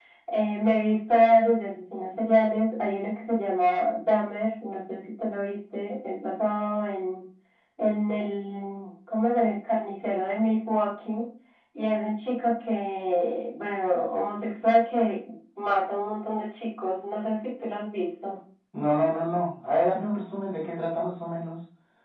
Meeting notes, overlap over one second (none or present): none